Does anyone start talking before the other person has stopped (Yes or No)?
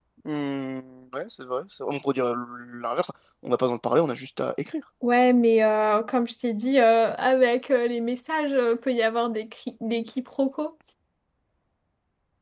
No